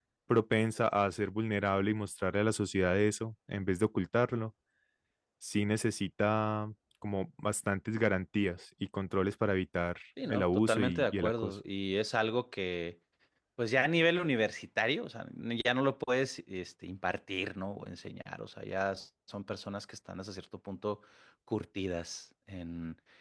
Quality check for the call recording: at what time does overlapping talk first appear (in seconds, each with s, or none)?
10.2 s